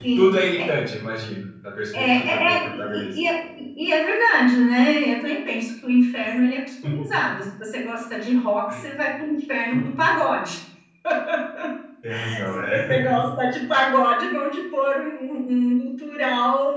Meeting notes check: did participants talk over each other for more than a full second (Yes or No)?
Yes